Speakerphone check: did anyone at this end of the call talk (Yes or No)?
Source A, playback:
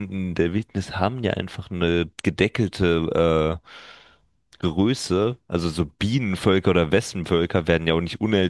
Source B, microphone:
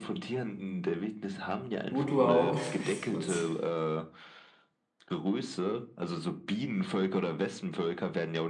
Yes